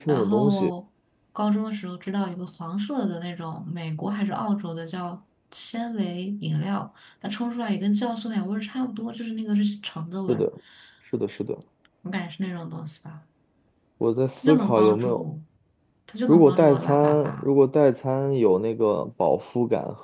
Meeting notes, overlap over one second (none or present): present